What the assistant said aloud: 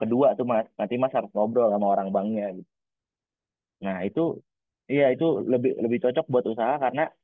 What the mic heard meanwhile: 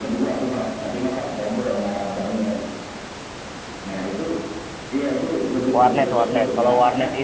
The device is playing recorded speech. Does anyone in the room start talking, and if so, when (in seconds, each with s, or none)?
5.8 s